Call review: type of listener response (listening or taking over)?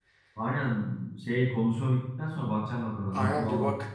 taking over